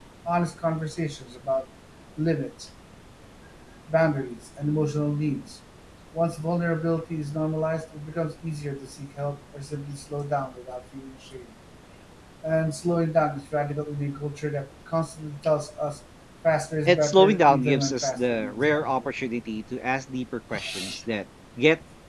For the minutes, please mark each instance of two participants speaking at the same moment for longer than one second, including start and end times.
16.8-19.1

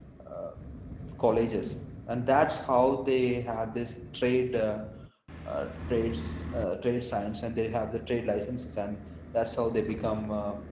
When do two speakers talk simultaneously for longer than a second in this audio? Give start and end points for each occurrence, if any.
none

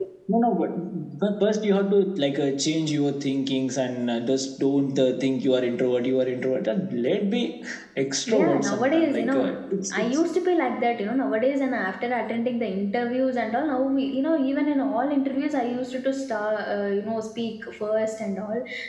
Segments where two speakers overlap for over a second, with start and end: 8.3-9.5

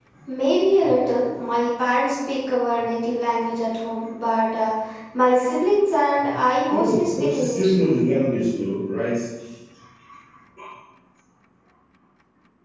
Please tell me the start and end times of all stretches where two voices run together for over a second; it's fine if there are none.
6.7-7.9

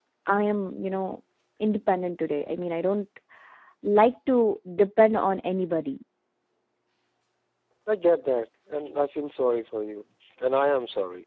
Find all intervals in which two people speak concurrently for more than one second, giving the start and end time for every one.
none

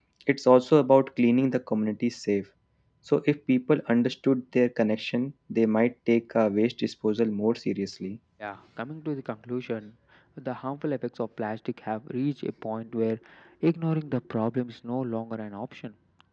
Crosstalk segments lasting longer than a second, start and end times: none

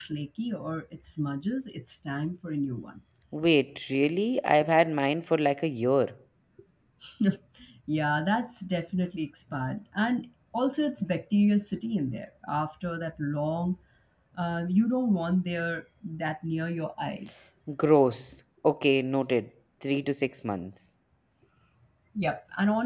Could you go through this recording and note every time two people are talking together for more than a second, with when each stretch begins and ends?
none

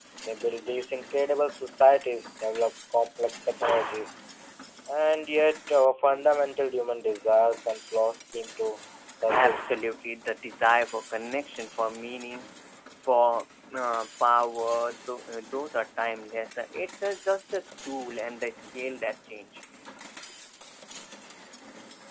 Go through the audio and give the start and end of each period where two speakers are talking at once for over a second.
none

